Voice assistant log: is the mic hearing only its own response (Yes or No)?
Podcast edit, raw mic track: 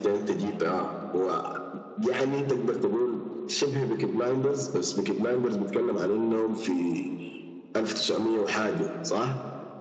Yes